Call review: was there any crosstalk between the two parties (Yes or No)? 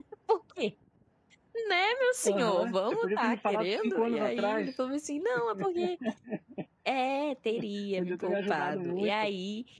Yes